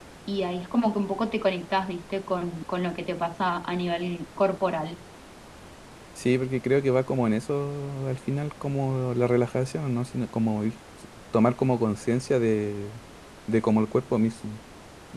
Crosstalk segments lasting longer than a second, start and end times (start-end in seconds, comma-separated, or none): none